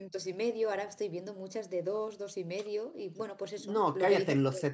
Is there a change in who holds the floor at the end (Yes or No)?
Yes